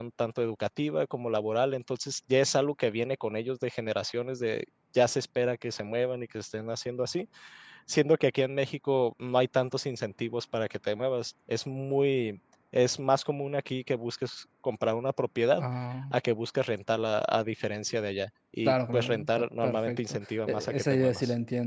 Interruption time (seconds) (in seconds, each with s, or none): 18.6 s